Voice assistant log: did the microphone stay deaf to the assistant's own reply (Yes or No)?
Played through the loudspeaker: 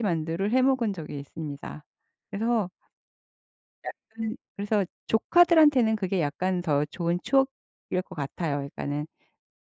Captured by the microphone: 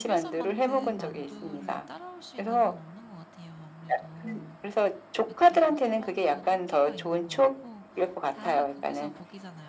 No